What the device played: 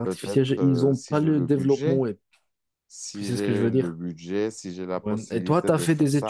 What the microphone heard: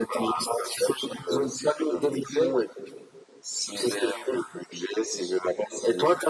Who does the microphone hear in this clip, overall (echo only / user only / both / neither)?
echo only